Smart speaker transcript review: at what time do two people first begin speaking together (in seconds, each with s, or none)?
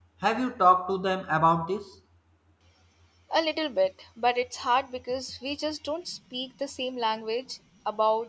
none